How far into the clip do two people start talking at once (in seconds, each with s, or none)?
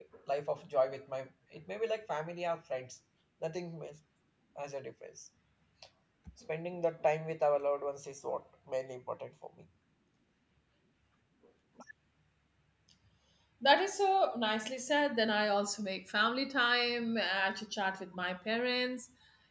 none